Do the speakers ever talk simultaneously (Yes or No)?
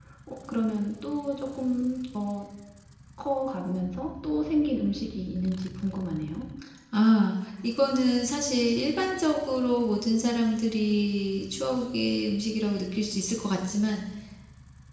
No